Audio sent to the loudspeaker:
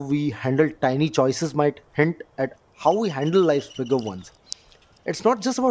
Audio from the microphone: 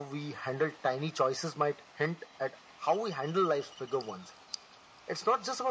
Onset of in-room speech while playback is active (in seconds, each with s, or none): none